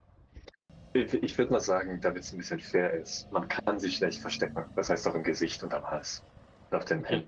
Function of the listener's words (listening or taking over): taking over